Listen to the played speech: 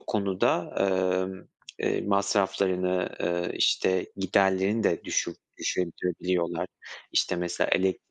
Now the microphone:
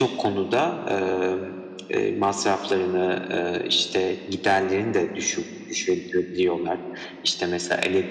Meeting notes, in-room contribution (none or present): none